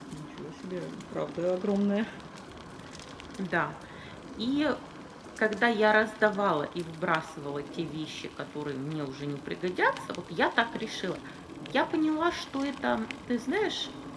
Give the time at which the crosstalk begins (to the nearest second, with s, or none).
none